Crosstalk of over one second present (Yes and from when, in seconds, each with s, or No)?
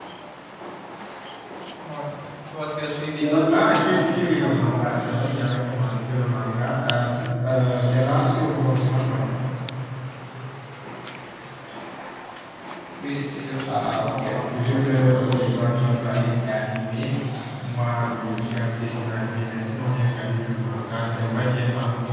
Yes, from 3.2 s